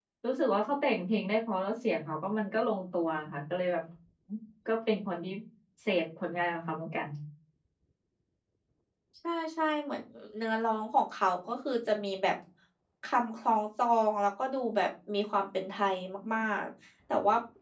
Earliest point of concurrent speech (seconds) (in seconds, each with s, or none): none